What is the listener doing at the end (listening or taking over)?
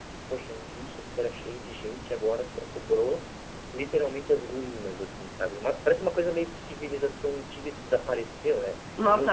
taking over